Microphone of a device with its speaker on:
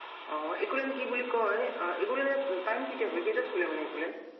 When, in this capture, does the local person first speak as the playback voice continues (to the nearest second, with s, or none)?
none